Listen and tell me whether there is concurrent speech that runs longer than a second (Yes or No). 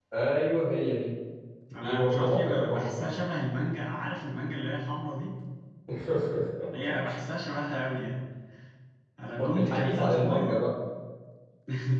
Yes